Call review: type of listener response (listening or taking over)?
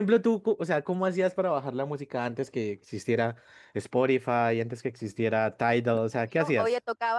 taking over